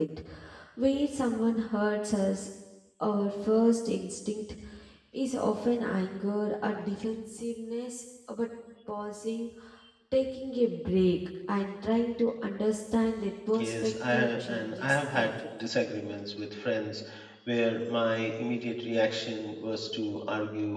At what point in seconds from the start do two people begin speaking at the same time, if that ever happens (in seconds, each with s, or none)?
13.5 s